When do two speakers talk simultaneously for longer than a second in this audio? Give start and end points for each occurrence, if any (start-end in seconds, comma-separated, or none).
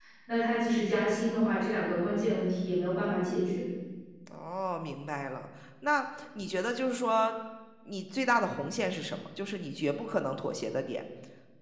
none